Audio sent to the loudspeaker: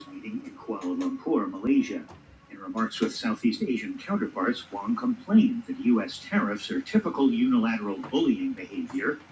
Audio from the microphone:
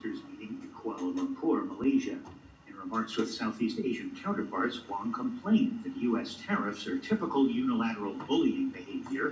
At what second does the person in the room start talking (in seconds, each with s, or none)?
none